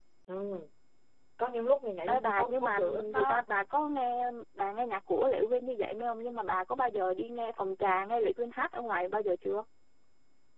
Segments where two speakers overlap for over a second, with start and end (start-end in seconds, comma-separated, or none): 2.1-3.4